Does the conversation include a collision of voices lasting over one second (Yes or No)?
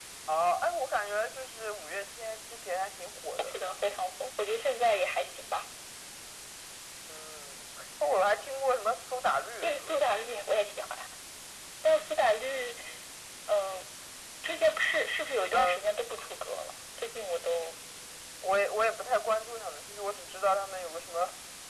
No